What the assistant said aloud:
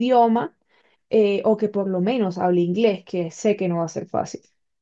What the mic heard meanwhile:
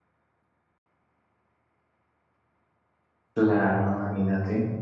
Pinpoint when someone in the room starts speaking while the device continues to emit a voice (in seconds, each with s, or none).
3.3 s